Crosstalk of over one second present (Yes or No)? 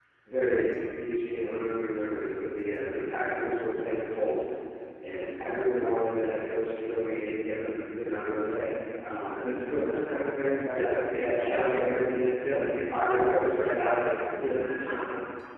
Yes